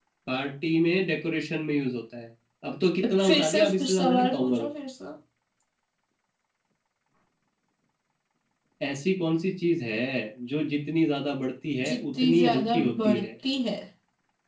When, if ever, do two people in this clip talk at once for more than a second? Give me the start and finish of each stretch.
3.3-4.7, 11.9-13.3

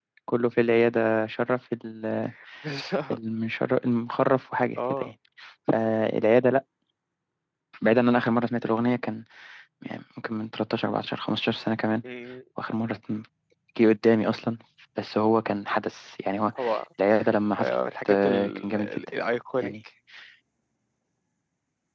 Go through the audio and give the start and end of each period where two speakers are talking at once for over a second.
17.6-19.0

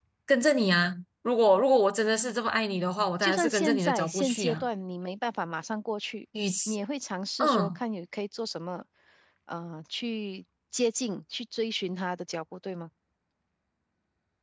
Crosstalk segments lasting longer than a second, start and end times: 3.2-4.6

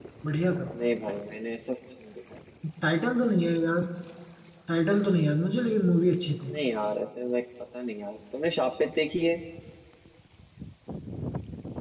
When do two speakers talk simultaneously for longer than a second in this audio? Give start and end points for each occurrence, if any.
none

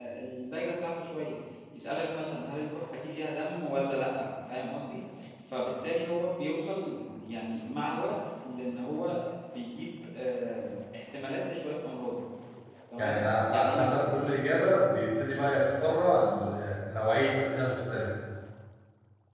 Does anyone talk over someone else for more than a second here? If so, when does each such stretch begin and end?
13.0-14.2

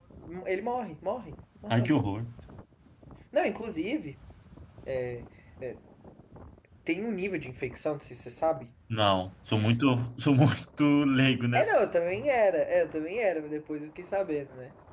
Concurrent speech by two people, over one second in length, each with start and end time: none

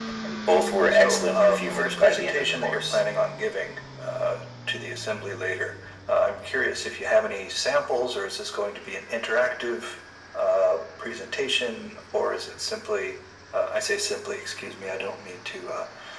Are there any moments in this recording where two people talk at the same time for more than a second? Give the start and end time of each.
0.9-3.0

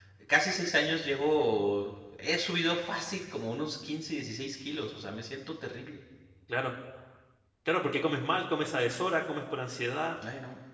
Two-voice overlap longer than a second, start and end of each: none

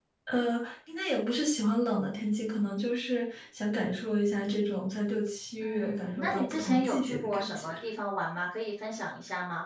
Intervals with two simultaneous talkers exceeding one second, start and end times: 5.6-7.7

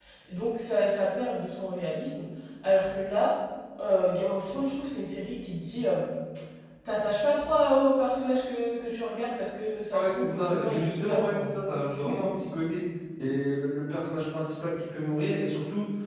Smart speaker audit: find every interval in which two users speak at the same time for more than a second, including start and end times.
10.0-11.5

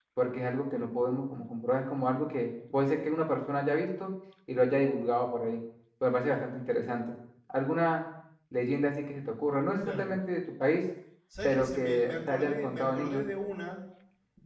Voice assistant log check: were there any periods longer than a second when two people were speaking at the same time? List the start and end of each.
11.4-13.2

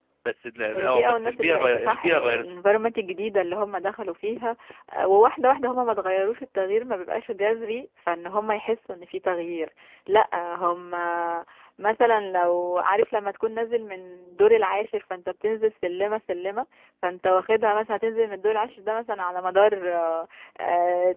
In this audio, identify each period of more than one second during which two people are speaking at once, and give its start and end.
0.8-2.5

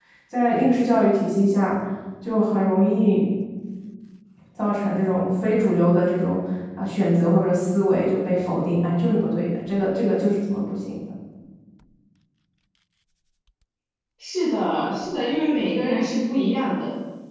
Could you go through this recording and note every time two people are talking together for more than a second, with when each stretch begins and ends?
none

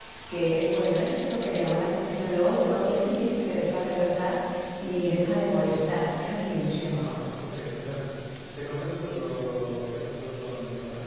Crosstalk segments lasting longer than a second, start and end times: none

